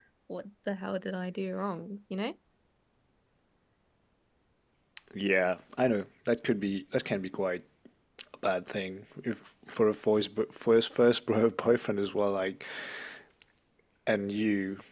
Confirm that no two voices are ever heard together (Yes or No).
Yes